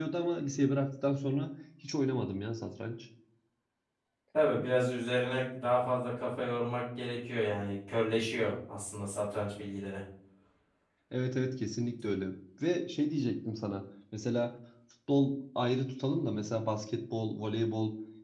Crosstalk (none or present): none